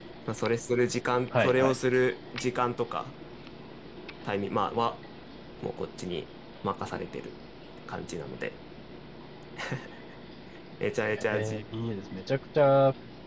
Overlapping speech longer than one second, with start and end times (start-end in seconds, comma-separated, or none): none